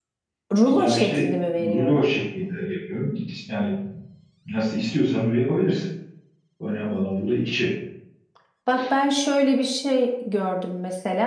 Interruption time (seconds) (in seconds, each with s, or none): 0.6 s